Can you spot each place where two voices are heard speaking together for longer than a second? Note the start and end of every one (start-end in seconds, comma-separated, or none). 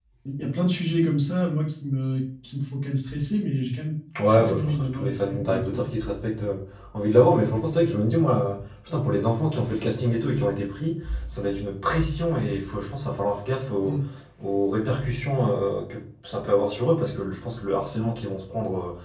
4.3-5.8